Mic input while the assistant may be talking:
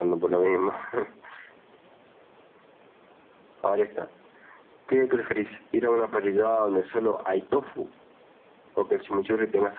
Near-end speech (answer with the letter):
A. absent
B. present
A